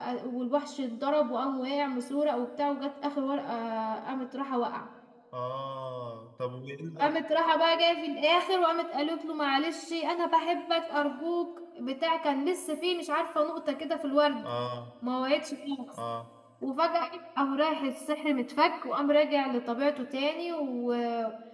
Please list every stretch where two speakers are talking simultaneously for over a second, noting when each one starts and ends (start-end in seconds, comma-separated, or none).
none